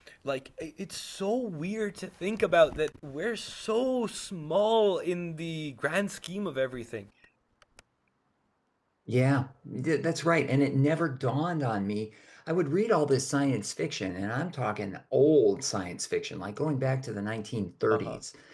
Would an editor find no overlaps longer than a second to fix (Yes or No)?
Yes